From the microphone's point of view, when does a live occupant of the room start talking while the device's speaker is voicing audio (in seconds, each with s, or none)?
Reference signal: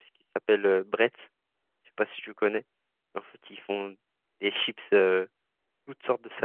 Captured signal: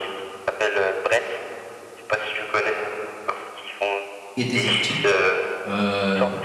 4.3 s